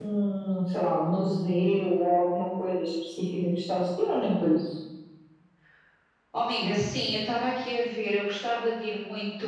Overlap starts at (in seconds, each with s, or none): none